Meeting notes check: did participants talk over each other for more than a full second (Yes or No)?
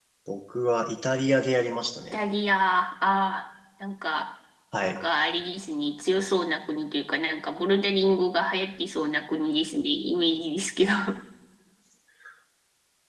No